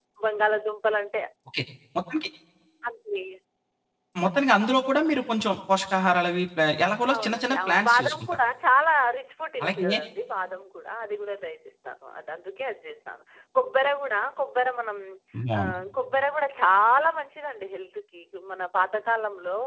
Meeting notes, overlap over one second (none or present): present